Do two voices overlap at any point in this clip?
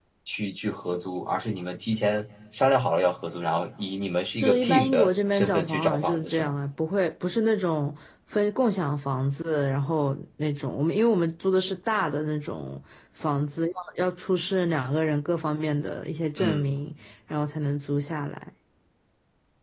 Yes, from 4.3 s

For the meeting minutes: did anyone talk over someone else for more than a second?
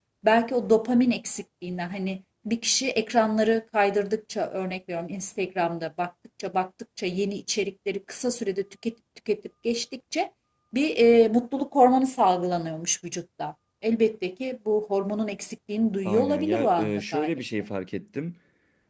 Yes, from 16.1 s

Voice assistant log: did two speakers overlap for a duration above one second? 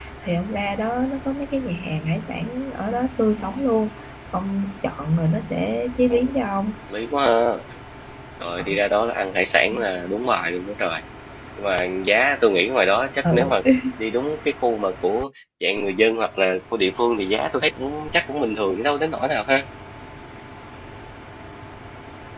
No

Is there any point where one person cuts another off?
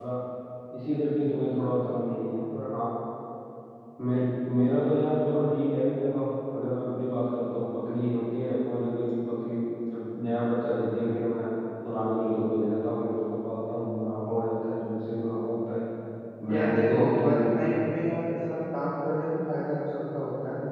Yes, from 16.5 s

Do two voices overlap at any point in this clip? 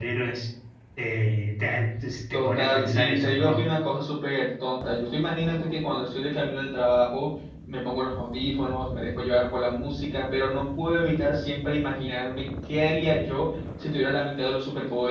Yes, from 2.3 s

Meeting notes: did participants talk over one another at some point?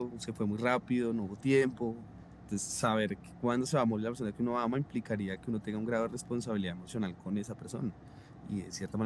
No

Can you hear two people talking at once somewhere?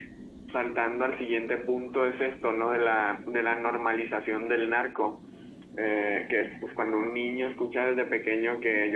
No

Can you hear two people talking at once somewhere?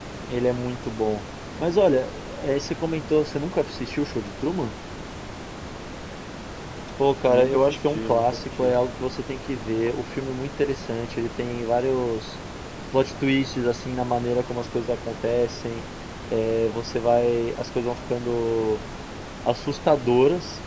Yes, from 7.3 s

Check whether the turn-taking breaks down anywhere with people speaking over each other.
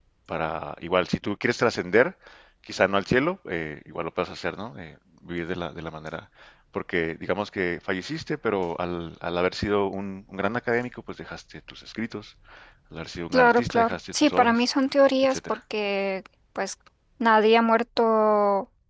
Yes, from 13.3 s

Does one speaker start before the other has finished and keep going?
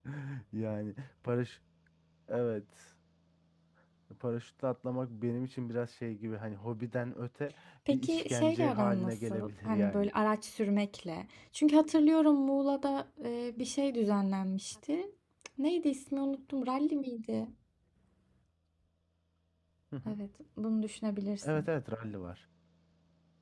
Yes, from 7.9 s

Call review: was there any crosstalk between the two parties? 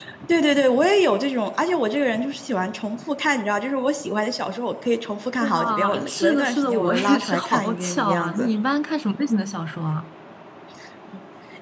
Yes, from 5.4 s

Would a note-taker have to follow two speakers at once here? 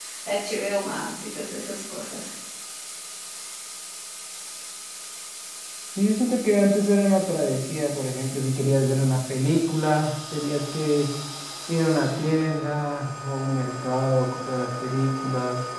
No

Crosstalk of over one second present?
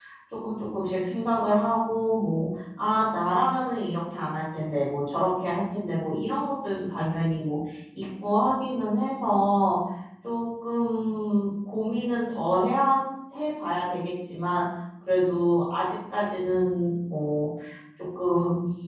No

